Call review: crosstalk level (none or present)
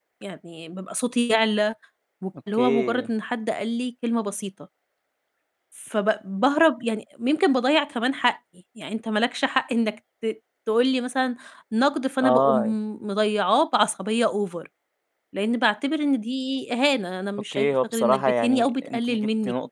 present